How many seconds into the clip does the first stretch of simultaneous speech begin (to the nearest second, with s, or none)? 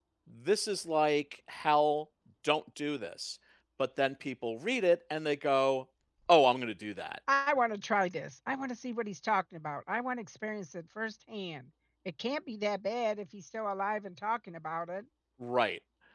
none